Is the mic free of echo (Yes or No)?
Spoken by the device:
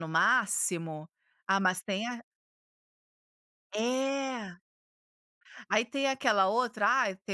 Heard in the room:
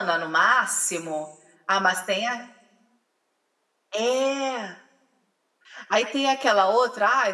No